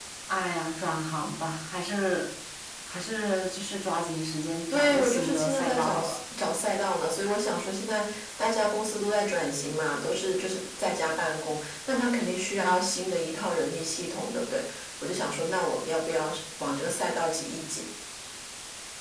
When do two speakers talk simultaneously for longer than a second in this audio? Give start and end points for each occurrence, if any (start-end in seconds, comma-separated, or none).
4.7-6.2